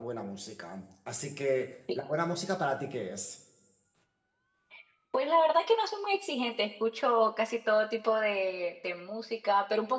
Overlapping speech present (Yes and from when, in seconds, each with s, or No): No